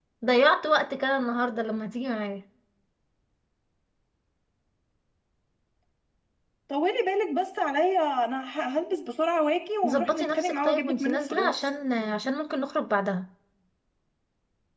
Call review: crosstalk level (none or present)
present